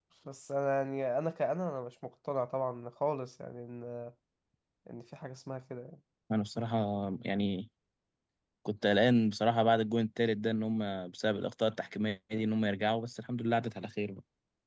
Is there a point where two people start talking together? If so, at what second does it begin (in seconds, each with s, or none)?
none